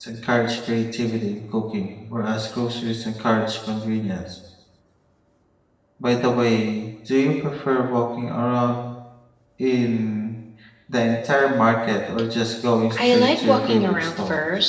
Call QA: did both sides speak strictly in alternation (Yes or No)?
No